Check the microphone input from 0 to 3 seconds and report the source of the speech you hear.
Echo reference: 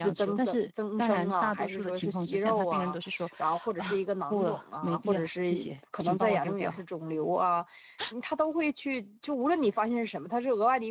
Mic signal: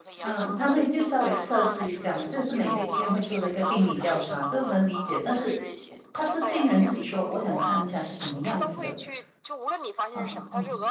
both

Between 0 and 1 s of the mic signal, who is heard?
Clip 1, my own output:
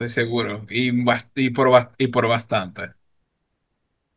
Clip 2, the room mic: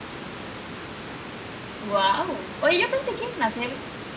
neither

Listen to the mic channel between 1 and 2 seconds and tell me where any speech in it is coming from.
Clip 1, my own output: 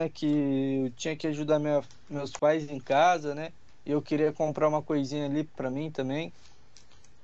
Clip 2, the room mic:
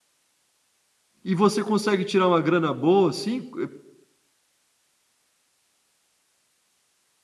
user only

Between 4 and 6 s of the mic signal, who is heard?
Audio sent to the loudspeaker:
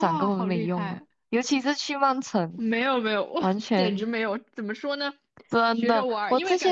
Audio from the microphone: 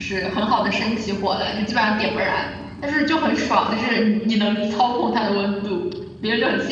user only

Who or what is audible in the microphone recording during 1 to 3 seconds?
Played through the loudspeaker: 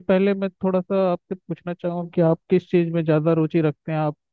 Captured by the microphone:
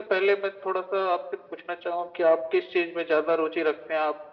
echo only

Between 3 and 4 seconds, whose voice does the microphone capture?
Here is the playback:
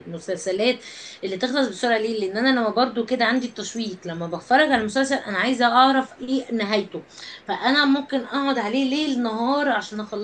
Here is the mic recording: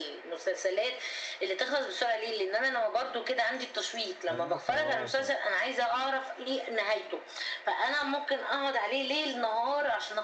echo only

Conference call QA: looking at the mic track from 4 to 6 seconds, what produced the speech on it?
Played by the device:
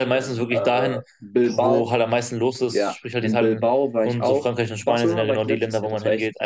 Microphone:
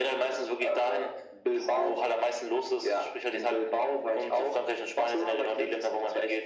echo only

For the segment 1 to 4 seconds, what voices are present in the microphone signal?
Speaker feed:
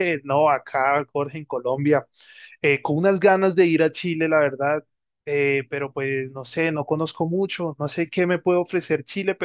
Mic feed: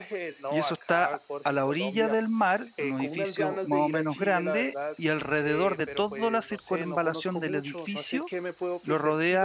both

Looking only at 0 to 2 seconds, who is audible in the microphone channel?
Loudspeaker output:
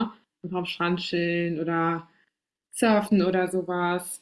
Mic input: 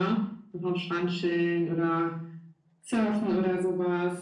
echo only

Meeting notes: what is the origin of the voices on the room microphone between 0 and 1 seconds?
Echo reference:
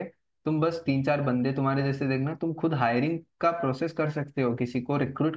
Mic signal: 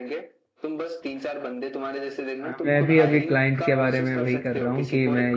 echo only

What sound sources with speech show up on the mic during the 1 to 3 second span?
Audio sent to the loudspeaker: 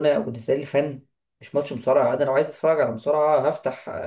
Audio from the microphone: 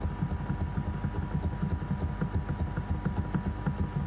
neither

